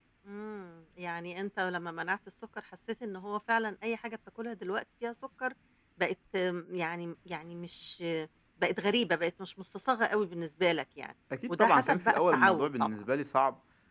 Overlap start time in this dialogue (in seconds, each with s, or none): 11.3 s